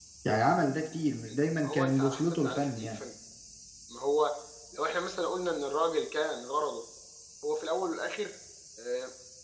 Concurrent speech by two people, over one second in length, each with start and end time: 1.6-2.9

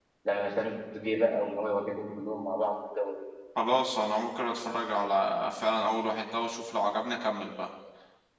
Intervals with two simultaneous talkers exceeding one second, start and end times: none

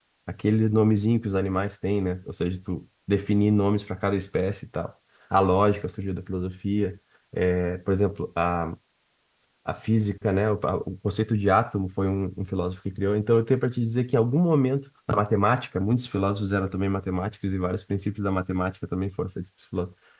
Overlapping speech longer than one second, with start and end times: none

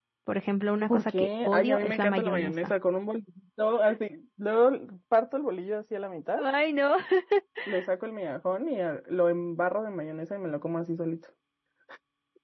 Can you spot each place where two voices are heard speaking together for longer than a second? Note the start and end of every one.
0.9-2.7

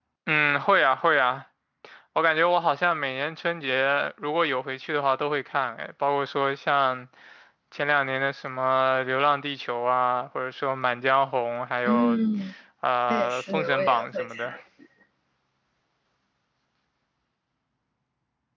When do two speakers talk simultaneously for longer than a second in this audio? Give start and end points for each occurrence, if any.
13.1-14.5

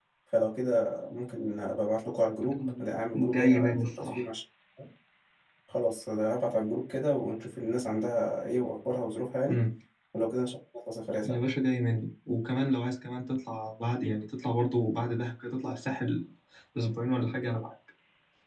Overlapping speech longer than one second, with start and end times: 2.6-4.2

